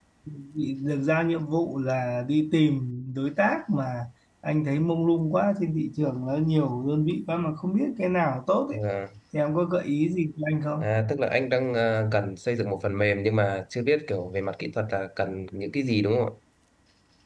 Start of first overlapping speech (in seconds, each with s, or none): none